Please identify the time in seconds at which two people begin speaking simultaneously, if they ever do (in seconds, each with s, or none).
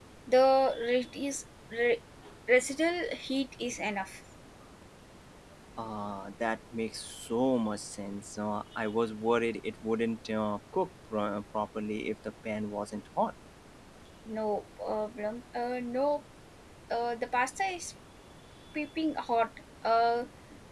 none